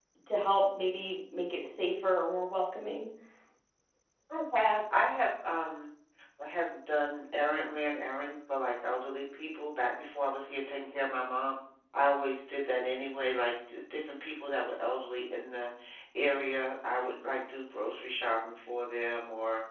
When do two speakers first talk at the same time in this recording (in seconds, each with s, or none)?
none